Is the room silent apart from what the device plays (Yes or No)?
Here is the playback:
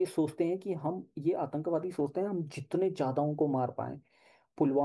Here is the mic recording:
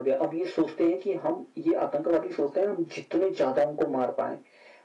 Yes